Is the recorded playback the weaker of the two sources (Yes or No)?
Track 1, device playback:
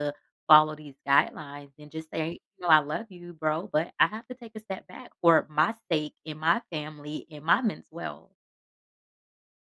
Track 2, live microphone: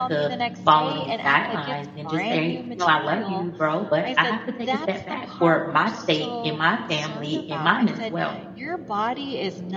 No